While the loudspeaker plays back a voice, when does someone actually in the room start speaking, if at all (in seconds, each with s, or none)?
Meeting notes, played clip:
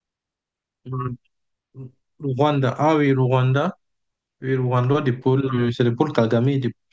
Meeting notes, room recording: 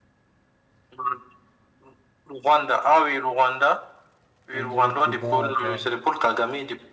4.5 s